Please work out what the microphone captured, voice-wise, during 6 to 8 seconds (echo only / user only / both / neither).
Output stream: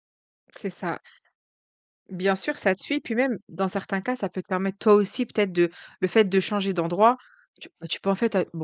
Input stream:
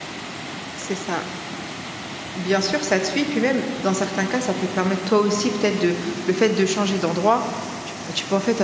echo only